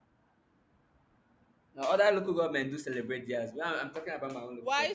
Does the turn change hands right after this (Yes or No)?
Yes